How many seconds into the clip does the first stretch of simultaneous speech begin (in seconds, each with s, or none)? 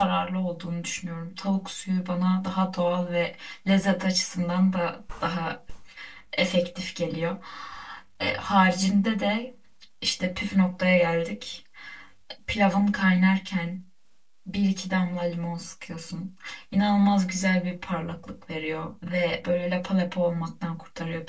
none